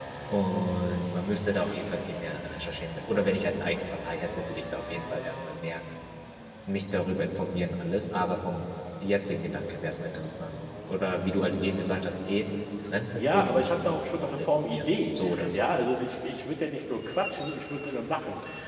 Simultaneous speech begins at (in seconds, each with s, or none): 13.2 s